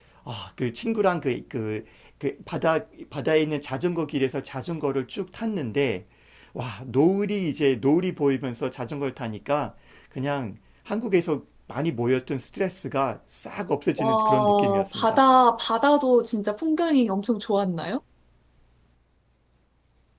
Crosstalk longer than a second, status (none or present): present